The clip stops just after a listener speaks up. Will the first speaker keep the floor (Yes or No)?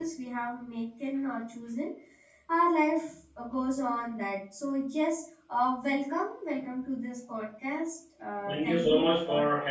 No